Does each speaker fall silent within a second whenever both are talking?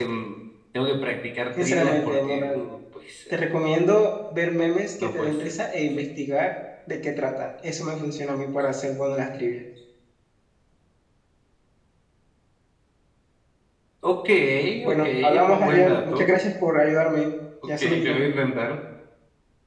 No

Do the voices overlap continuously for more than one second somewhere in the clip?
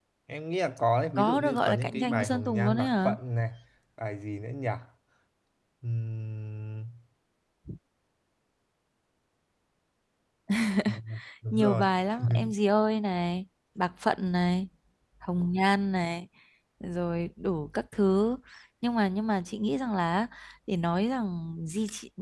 Yes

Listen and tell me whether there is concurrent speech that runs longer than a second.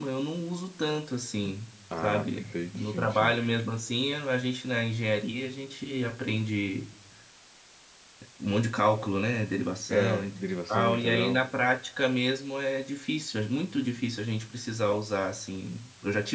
Yes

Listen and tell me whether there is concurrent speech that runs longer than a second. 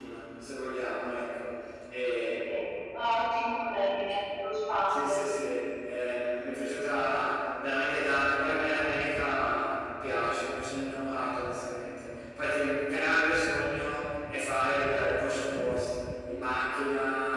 No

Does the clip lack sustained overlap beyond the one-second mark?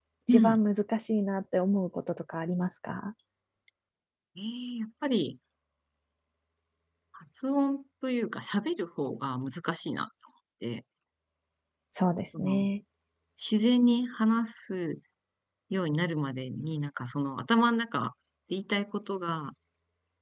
Yes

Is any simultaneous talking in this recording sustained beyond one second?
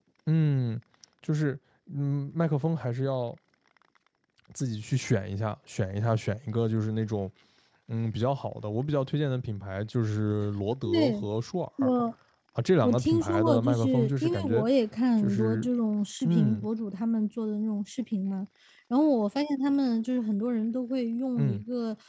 Yes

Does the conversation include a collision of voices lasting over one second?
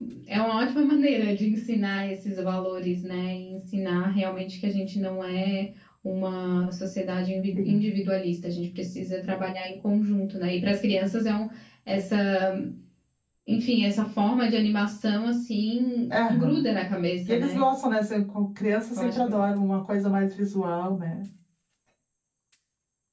No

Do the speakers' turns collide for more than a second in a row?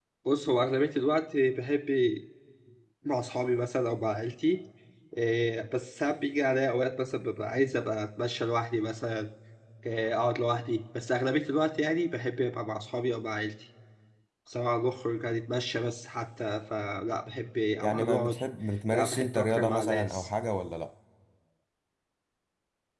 Yes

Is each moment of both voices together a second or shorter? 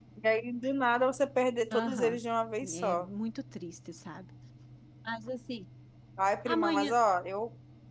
Yes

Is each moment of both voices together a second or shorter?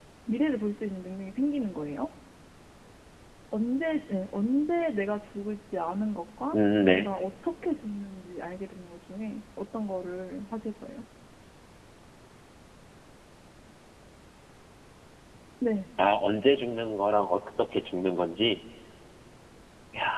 Yes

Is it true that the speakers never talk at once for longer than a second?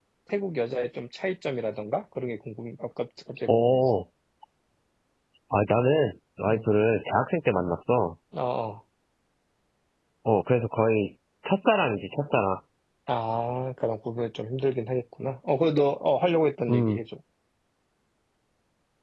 Yes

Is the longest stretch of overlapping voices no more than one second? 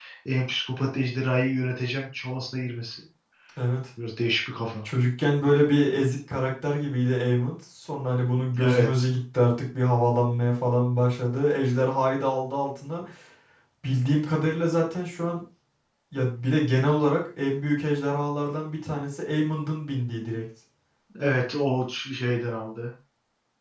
Yes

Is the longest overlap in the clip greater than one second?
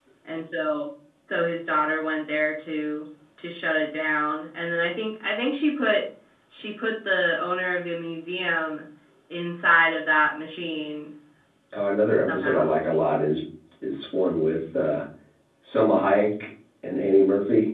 No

